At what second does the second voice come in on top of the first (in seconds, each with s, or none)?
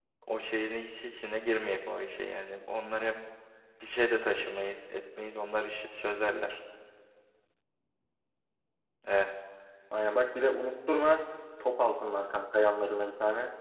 none